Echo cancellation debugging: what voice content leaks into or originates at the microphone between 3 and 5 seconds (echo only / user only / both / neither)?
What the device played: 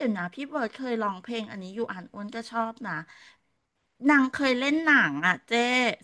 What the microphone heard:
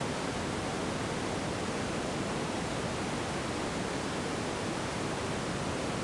neither